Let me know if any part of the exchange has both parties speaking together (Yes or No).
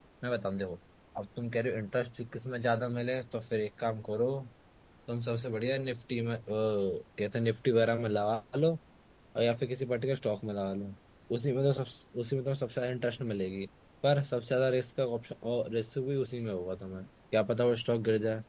No